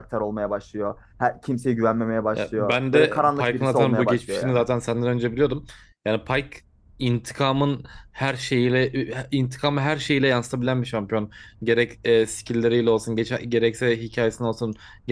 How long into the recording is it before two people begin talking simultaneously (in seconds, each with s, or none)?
2.3 s